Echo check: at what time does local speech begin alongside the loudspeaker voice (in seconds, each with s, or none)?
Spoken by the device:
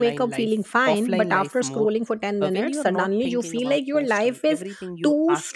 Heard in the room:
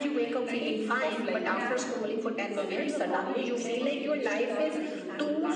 0.6 s